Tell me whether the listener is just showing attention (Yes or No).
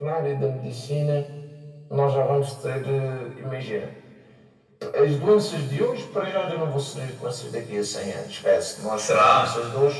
Yes